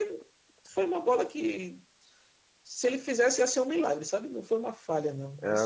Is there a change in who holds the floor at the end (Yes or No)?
Yes